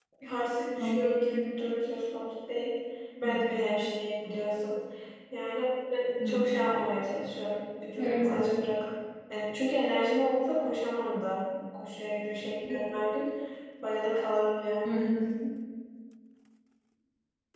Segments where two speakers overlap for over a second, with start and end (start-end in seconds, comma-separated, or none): none